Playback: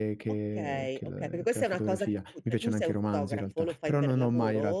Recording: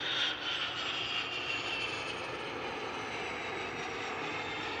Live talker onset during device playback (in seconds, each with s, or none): none